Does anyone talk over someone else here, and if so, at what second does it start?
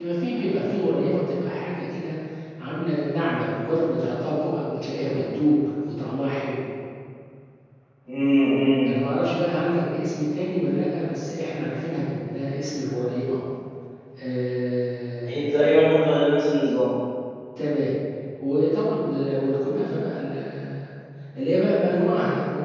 none

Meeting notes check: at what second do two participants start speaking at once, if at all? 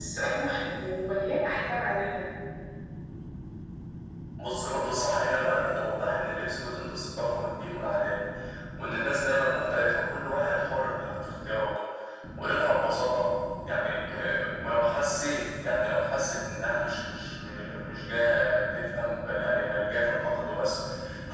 none

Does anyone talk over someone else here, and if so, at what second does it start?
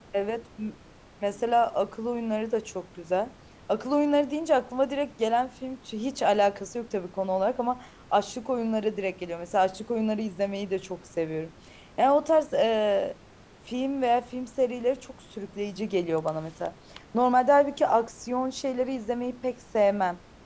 none

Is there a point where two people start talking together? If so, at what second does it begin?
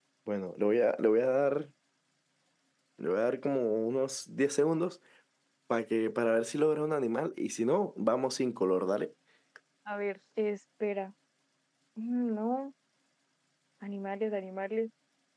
none

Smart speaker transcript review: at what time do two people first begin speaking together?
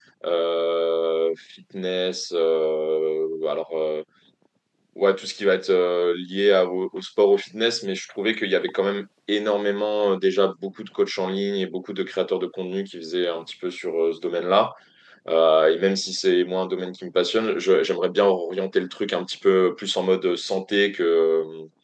none

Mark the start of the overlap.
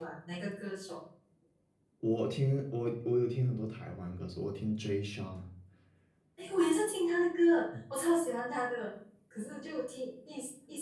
none

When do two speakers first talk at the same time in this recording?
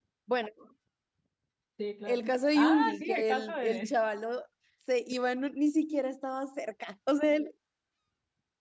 2.1 s

